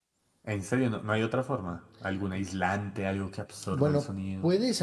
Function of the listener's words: taking over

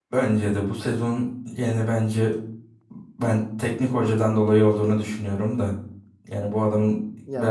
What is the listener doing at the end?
taking over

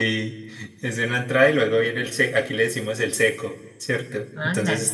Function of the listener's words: listening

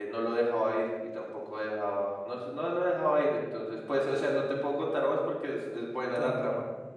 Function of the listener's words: listening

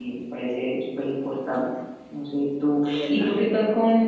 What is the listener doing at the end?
listening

